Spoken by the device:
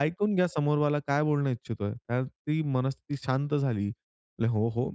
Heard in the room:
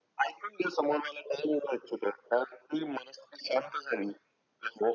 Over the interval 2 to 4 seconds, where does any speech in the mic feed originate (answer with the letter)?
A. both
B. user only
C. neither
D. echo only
D